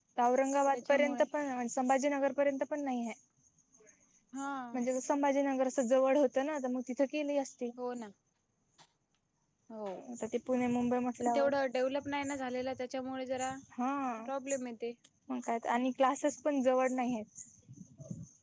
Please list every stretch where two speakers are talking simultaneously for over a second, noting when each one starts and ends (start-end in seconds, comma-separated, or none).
none